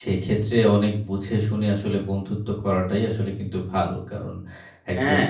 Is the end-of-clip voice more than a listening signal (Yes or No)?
No